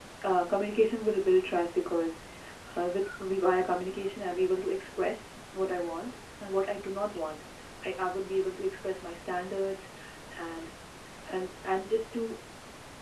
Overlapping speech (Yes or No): No